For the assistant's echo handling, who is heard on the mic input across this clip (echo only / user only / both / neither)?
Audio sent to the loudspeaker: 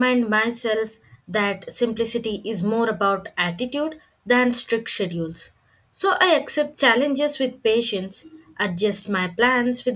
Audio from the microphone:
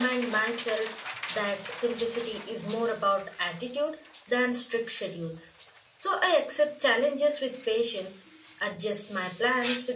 echo only